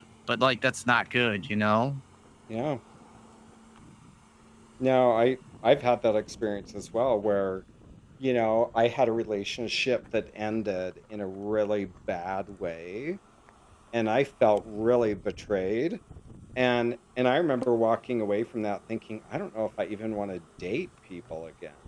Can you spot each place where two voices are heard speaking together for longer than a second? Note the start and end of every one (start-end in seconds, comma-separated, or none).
none